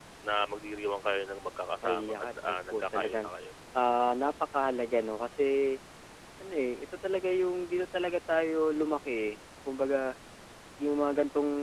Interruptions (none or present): present